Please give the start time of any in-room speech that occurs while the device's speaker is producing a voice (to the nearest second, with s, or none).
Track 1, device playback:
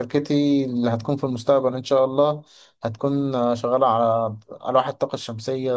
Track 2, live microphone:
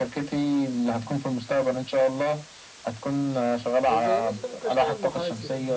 4 s